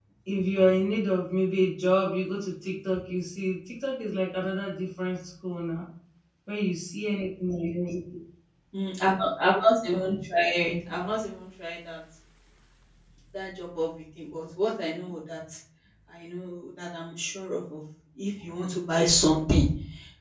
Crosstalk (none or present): none